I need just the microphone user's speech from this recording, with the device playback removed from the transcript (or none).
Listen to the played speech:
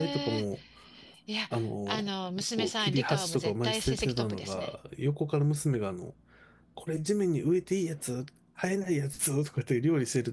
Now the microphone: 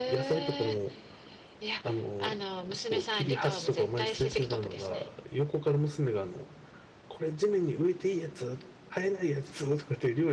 none